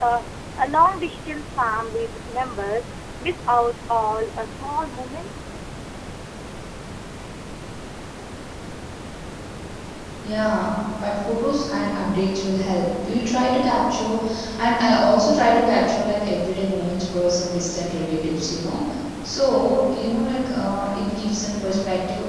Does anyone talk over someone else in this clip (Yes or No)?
No